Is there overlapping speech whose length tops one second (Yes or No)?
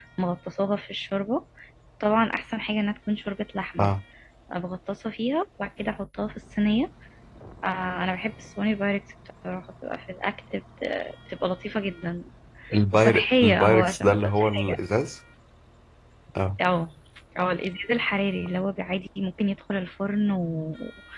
Yes